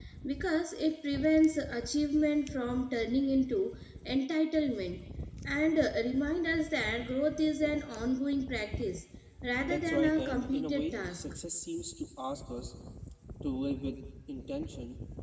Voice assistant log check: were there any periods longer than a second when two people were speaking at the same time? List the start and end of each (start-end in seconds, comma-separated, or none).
9.6-11.2